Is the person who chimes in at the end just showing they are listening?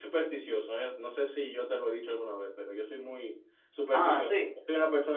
Yes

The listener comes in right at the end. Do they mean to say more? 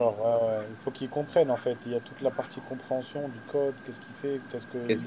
No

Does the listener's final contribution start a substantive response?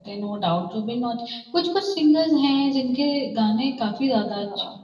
Yes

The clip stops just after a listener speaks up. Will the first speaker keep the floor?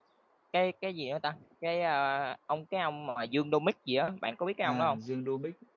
No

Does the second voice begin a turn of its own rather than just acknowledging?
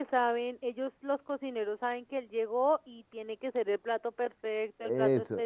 Yes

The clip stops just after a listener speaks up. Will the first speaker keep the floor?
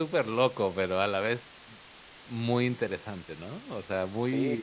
No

